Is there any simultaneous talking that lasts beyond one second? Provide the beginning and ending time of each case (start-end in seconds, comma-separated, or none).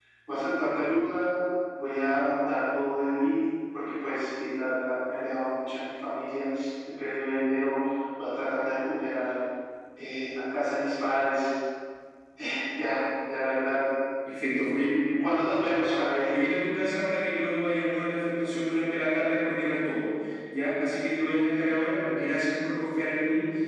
none